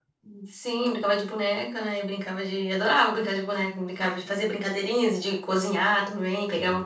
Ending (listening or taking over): listening